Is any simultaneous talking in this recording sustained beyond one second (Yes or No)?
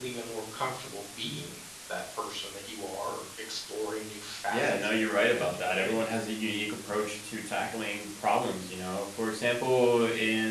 Yes